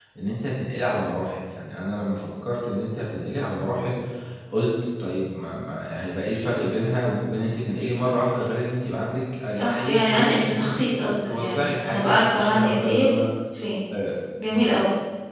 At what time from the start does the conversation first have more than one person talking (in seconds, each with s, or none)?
9.4 s